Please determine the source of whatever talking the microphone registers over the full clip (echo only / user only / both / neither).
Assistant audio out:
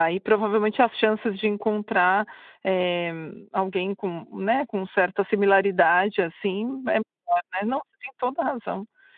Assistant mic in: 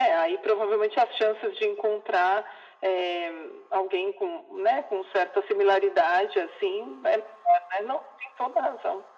echo only